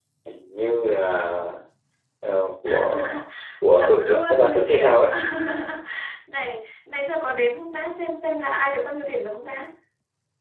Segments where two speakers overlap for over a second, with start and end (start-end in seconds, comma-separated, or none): 3.7-4.9